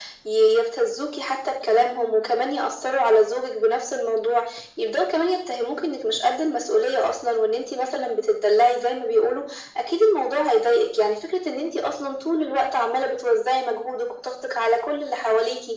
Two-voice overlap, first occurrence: none

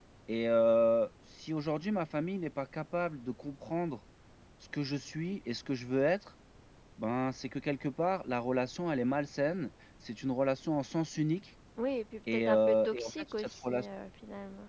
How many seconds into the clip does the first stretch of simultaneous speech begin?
12.3 s

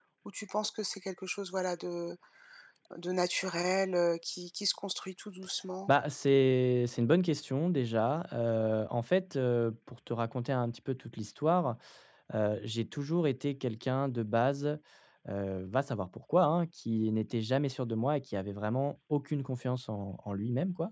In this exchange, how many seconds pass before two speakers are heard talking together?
none

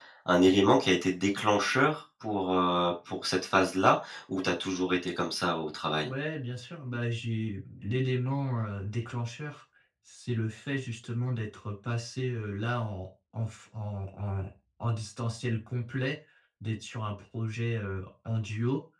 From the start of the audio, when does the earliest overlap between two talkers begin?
none

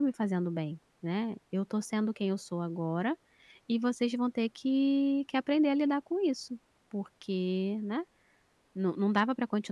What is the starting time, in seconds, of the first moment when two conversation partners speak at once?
none

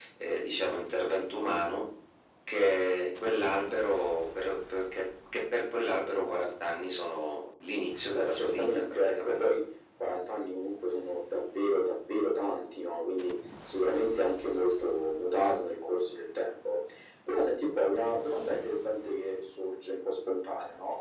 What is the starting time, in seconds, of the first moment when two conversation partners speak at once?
8.1 s

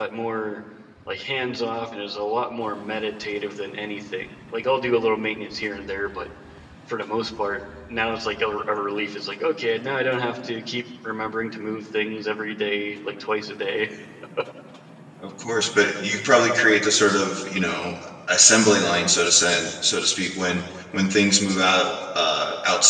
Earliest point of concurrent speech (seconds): none

